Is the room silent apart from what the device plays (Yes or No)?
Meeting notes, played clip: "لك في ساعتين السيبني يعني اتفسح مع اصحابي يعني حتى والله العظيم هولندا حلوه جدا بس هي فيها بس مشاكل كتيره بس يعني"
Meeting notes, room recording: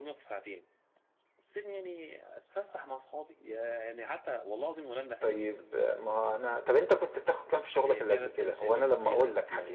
No